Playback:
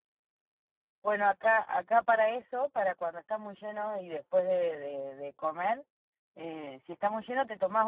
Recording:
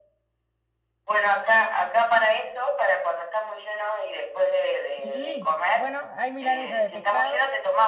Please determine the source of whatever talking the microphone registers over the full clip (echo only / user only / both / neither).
both